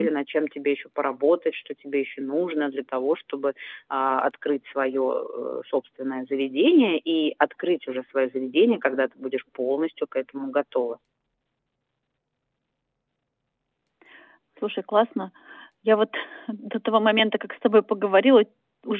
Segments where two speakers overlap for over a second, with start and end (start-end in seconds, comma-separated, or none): none